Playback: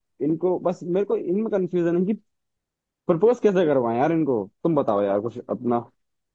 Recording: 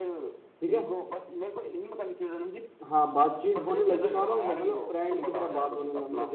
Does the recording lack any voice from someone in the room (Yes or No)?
No